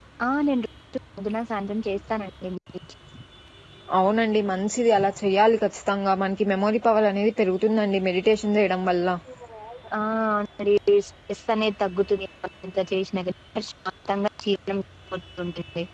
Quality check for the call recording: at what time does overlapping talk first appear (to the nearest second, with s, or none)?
none